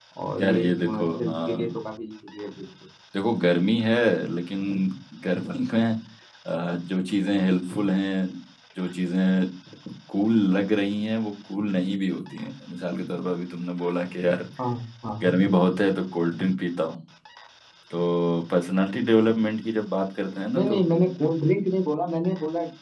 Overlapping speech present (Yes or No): Yes